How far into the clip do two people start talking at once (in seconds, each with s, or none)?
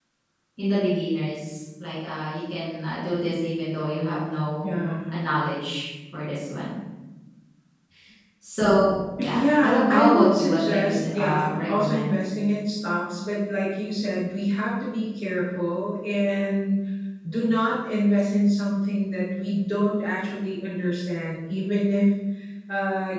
9.2 s